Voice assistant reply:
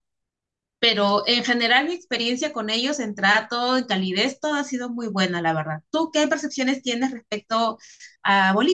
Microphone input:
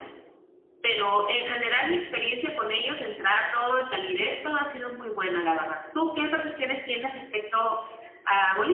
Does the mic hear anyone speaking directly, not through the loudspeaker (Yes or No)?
No